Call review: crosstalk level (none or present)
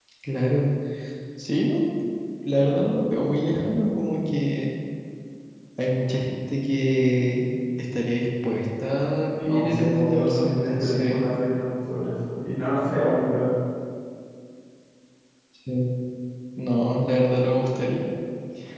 present